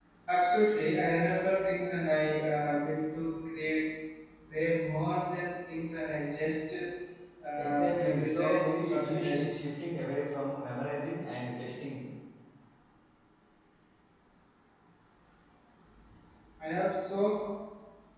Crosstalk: present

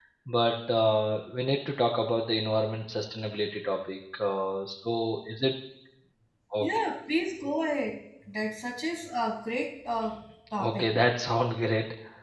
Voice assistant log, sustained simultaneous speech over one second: none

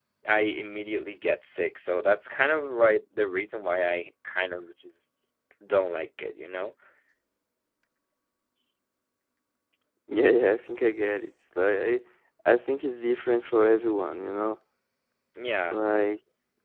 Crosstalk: none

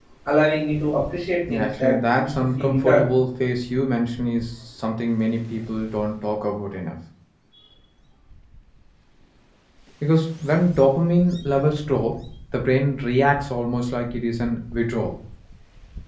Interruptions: present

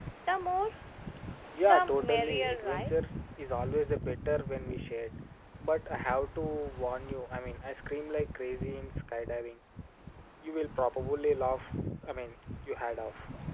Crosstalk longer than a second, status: present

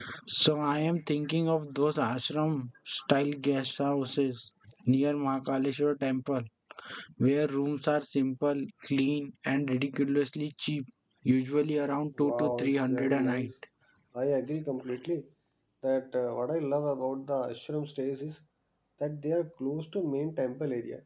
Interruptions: present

